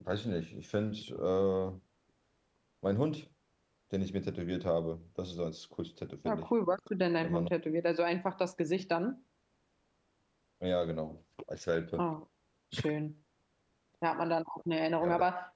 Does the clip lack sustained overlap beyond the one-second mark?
Yes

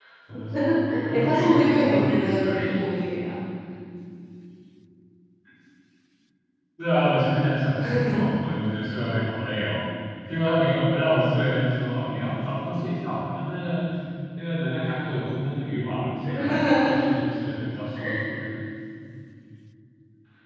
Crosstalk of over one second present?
Yes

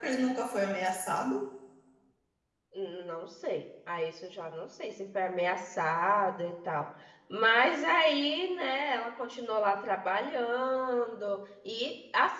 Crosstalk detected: No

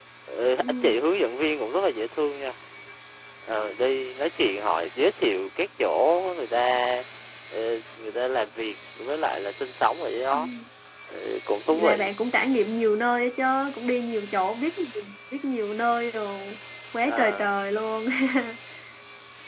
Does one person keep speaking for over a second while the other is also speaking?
No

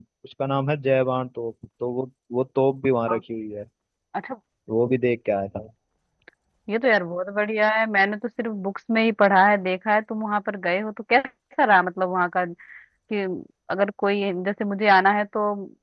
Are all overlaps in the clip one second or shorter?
Yes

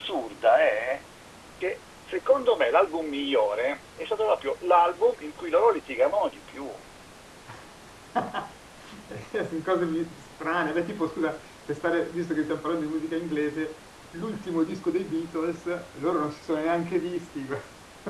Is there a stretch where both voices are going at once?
No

